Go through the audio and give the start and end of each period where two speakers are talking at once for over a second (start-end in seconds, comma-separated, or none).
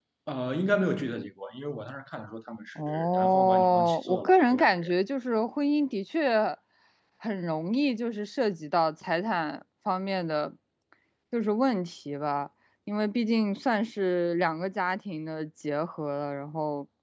2.8-4.9